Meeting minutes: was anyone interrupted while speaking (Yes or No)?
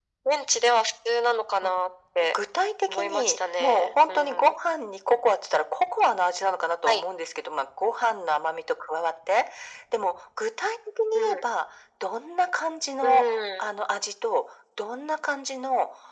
Yes